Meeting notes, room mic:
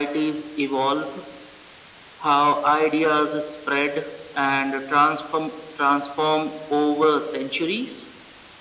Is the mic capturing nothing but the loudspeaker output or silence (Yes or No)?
Yes